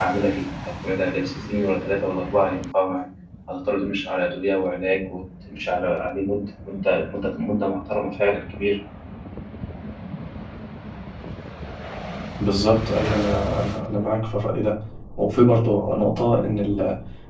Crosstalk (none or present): none